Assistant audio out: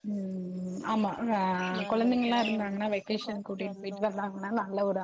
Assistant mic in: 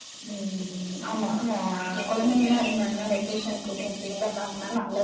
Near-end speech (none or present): none